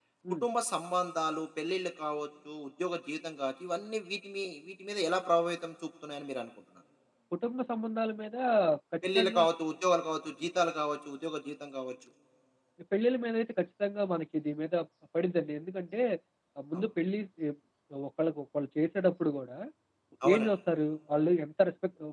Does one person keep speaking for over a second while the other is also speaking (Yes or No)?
No